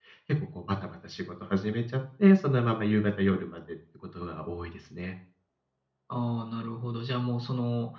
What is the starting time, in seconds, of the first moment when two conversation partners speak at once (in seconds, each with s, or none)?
none